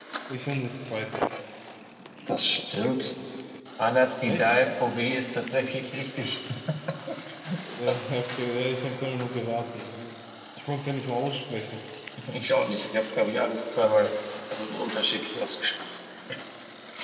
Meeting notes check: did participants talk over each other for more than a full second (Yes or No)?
No